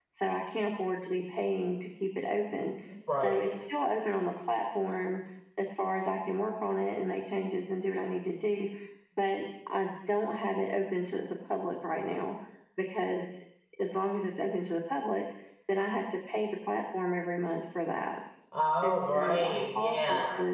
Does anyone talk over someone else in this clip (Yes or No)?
Yes